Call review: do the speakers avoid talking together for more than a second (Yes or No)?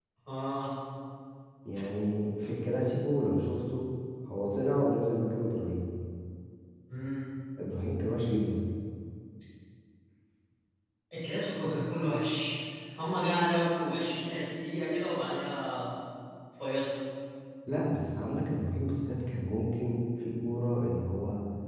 Yes